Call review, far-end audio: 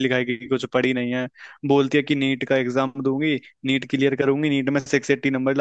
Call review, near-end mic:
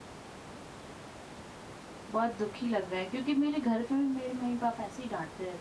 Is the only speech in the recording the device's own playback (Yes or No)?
No